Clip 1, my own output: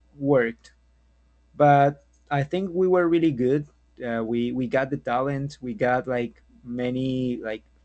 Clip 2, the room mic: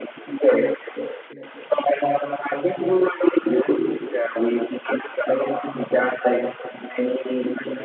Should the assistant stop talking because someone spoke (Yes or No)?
No